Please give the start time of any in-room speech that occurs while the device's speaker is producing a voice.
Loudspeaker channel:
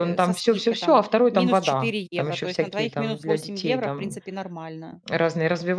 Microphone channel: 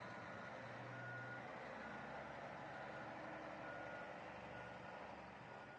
none

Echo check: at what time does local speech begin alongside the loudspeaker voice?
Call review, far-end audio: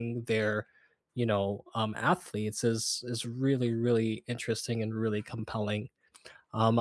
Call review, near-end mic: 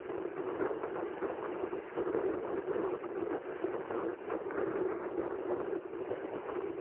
none

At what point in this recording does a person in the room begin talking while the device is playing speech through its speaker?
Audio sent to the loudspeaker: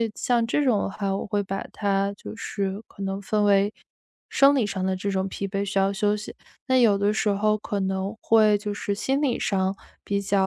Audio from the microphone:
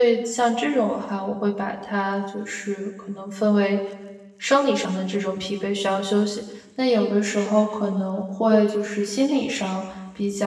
none

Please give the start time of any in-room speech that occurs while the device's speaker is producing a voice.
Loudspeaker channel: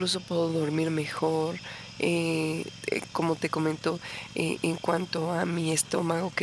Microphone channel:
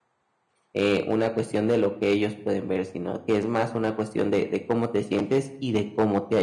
0.7 s

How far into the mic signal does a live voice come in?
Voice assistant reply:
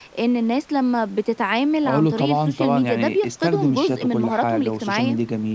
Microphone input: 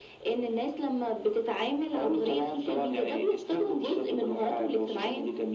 none

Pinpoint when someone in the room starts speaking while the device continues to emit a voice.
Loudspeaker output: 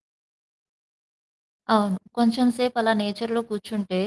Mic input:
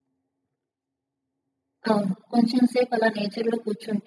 none

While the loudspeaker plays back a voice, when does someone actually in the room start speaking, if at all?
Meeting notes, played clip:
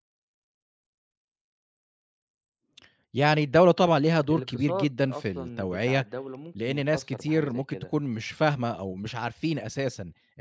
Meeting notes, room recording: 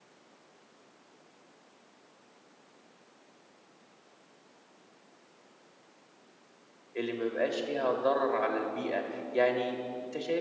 7.0 s

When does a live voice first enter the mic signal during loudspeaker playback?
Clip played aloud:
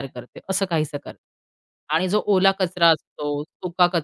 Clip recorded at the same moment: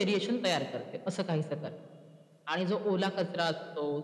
none

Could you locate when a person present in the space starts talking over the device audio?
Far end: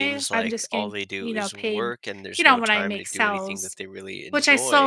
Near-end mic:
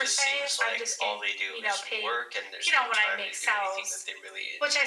none

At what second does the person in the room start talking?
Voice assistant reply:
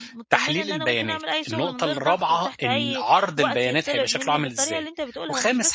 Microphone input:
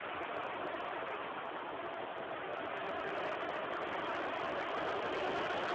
none

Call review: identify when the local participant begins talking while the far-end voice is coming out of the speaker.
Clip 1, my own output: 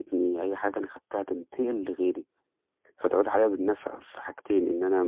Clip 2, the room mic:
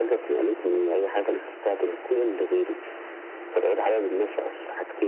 none

